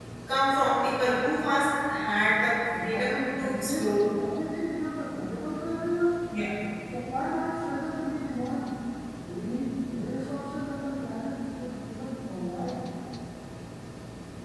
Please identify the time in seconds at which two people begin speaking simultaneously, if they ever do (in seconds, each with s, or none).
2.7 s